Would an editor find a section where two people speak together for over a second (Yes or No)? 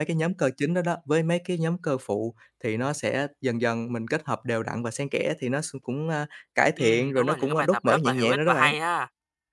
Yes